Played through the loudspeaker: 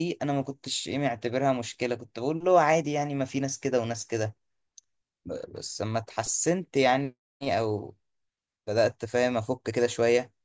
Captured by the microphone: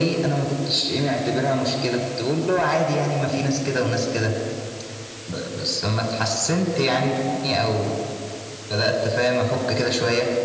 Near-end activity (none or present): none